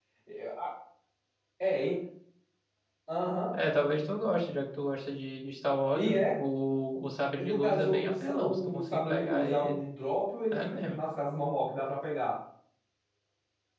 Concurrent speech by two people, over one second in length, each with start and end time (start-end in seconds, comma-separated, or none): 7.4-9.7